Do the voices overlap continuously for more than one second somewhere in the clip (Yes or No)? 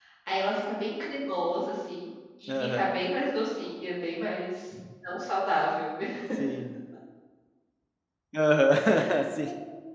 No